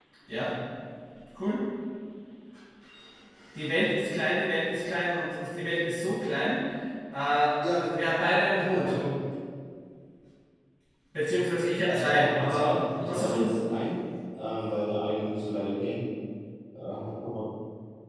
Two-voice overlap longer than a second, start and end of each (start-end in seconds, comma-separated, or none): 11.9-13.5